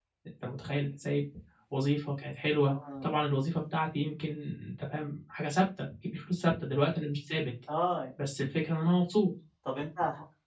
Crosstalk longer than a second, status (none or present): none